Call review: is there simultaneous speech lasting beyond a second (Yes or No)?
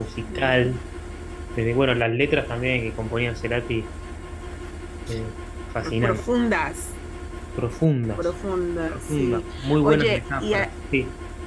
Yes